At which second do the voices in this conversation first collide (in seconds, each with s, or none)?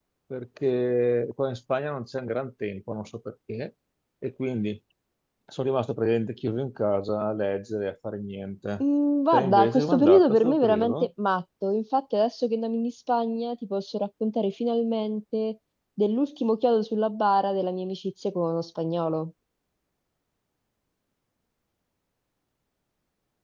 9.3 s